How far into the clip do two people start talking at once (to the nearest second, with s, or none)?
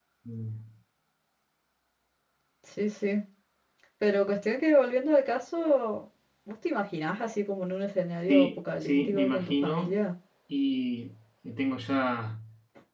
8 s